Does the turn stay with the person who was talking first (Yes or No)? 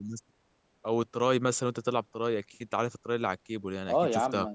No